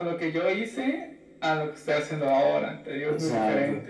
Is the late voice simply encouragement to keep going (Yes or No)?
No